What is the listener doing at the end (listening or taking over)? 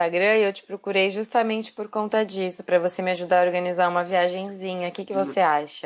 taking over